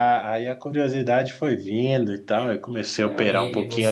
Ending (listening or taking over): taking over